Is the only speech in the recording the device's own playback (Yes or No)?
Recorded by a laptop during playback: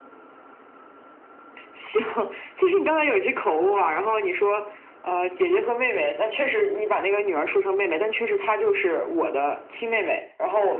Yes